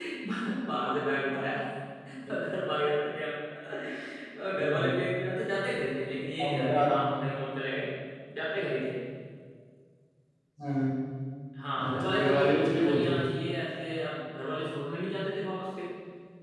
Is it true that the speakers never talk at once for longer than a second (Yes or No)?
No